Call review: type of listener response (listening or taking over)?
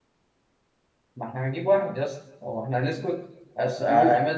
listening